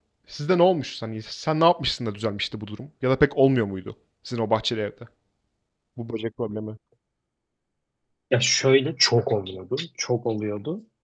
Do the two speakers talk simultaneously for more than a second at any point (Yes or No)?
No